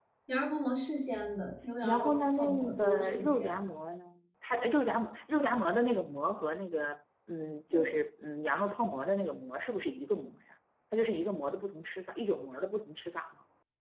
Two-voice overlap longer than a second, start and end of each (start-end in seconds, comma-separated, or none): 1.8-3.5